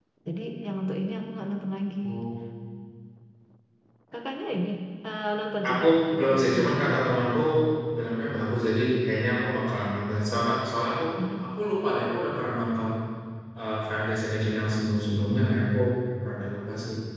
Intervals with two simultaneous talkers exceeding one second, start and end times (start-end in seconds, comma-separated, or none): 5.7-6.9